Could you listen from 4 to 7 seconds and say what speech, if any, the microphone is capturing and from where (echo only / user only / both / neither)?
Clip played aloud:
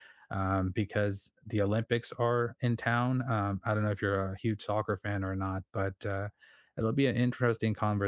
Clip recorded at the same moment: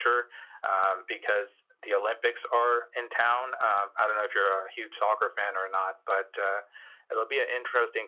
echo only